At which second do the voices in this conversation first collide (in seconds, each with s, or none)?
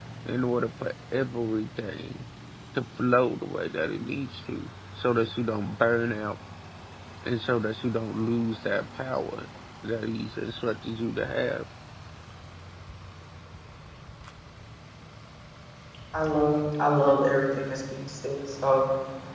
none